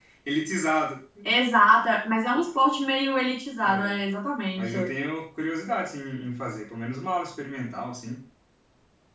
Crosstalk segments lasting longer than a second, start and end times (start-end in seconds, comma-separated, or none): none